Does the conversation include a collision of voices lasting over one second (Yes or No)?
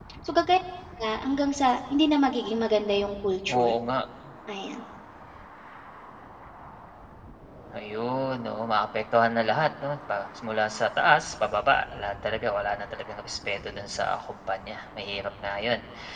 No